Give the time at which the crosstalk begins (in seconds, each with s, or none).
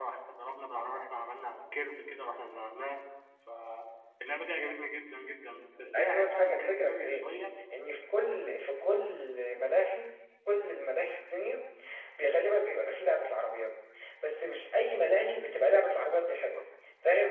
5.9 s